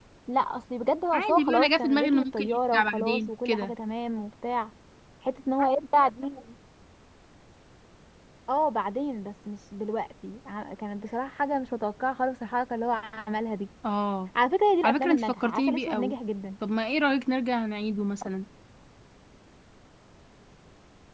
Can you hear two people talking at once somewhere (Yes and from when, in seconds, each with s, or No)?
Yes, from 1.1 s